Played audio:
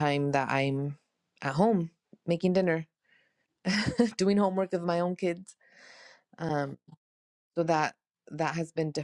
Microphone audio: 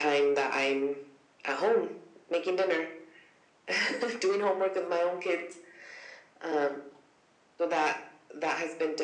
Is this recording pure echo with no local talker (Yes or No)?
Yes